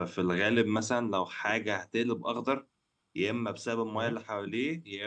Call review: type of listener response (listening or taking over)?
listening